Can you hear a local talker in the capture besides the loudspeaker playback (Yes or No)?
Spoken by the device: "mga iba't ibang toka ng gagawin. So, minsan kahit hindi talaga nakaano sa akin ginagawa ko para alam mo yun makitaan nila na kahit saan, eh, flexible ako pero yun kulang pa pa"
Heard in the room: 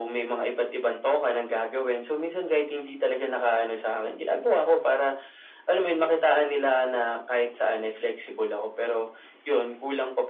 No